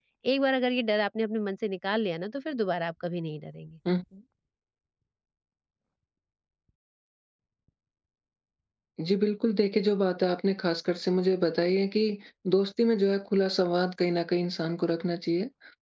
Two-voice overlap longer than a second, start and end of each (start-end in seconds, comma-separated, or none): none